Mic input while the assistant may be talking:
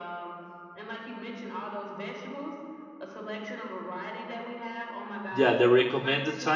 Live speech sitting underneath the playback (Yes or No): No